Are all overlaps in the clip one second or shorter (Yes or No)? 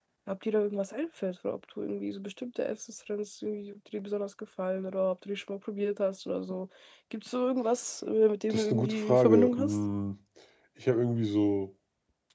No